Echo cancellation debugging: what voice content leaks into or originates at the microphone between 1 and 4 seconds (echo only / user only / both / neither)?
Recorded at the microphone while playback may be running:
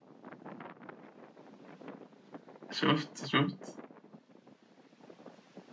user only